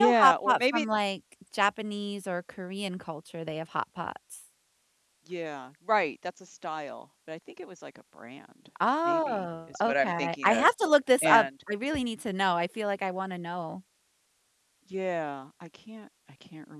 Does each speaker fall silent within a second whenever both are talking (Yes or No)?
No